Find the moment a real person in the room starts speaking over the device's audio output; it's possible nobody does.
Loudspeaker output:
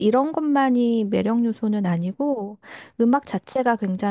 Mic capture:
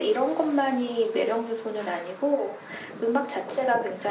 none

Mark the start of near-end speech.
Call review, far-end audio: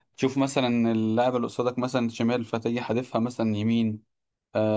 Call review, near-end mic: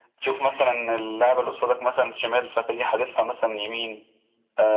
none

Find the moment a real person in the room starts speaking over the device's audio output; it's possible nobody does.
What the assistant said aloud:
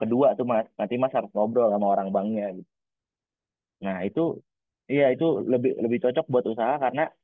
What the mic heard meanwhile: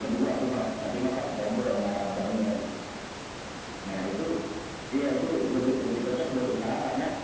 none

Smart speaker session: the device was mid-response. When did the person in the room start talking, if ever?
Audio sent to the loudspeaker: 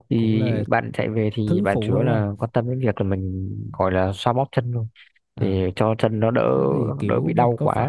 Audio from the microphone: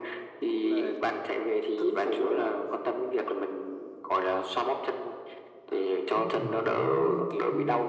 6.1 s

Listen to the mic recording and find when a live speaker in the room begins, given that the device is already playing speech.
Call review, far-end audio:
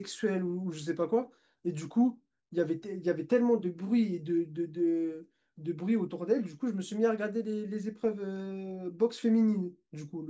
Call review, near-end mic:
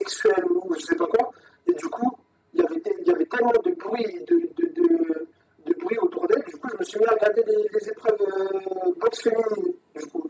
none

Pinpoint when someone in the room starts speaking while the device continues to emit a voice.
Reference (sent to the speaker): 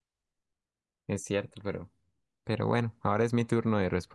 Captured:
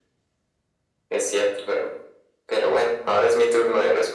none

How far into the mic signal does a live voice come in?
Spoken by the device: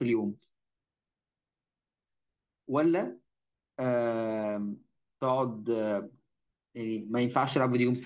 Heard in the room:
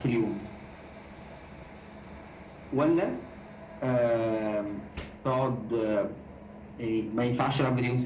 none

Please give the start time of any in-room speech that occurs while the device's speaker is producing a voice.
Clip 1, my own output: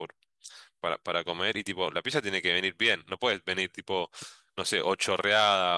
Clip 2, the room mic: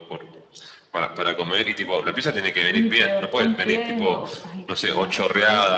2.7 s

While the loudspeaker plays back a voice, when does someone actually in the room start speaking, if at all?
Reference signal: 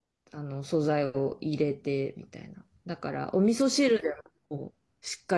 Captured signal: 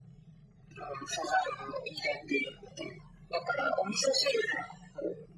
none

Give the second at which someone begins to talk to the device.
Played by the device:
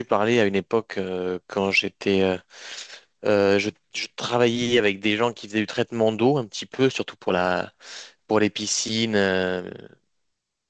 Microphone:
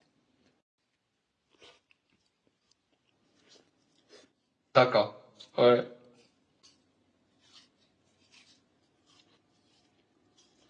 4.7 s

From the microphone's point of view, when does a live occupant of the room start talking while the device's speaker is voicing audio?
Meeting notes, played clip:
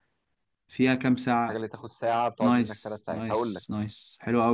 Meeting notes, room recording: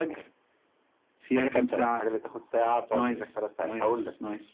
1.3 s

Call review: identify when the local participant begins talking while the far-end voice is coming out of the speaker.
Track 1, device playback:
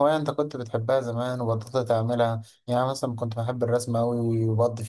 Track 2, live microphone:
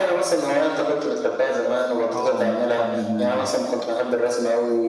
2.1 s

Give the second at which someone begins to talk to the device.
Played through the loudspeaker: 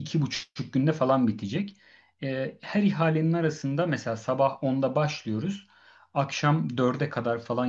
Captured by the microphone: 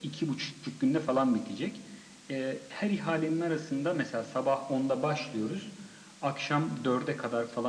none

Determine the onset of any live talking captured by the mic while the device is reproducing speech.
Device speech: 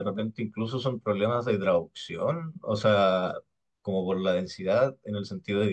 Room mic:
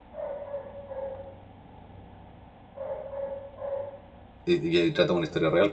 4.4 s

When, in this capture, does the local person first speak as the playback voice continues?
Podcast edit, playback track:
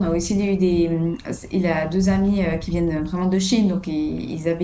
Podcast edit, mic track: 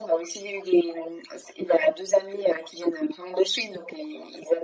none

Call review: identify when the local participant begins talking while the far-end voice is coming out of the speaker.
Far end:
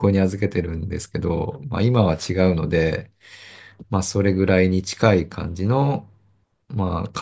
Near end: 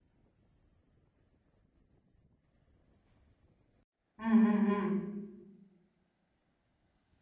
4.2 s

